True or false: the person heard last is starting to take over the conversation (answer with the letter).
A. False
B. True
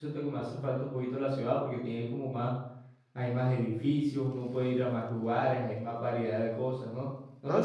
B